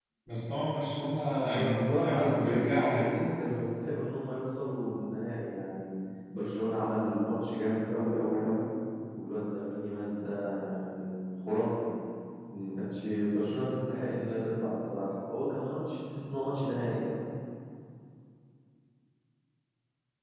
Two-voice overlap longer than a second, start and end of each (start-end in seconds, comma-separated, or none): 1.6-3.1